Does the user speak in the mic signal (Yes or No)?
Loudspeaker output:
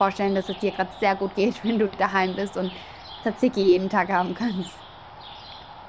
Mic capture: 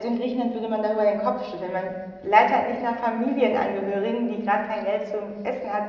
Yes